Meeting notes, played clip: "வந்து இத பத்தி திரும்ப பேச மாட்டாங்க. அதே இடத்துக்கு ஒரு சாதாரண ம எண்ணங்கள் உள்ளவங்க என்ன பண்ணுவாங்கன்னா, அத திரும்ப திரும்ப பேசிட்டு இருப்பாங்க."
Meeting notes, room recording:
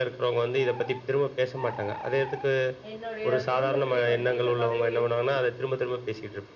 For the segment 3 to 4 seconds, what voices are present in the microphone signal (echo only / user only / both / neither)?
both